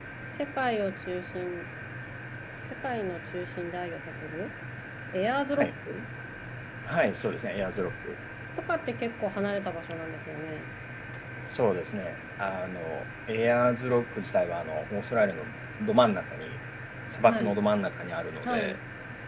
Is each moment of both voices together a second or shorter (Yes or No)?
Yes